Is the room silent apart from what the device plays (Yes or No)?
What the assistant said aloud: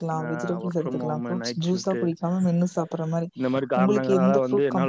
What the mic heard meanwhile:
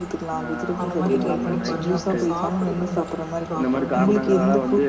No